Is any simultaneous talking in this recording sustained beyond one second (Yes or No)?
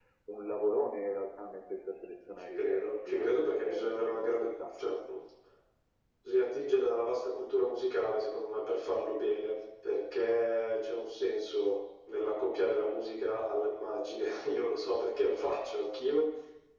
Yes